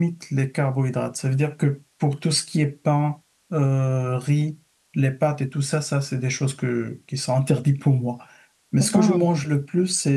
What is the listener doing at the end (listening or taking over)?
listening